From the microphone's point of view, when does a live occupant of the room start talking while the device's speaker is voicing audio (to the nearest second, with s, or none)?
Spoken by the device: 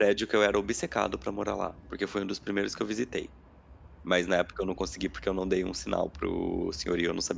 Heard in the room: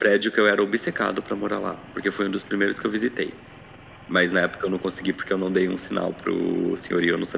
none